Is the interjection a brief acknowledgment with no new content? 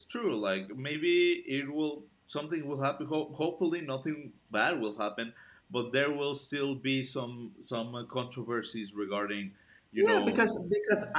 No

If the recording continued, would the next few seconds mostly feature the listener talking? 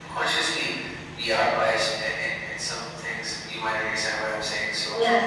Yes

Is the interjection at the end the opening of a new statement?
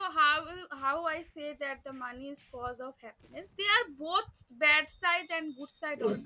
No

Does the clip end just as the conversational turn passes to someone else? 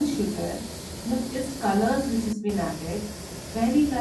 No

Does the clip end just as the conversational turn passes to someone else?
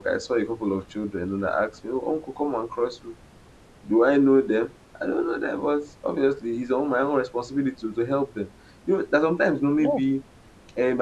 No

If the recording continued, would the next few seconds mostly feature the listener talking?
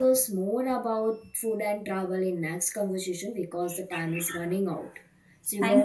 Yes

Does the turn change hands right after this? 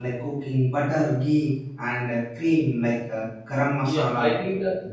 Yes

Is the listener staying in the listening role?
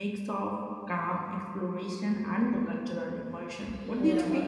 No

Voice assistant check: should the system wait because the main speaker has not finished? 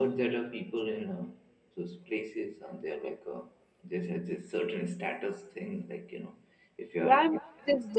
No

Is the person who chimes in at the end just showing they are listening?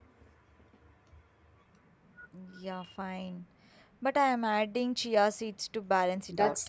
No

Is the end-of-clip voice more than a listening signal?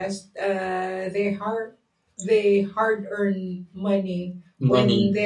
No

